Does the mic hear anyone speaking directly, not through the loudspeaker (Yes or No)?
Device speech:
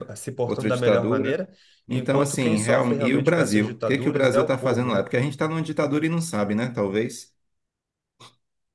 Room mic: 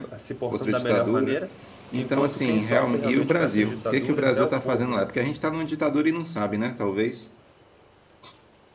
No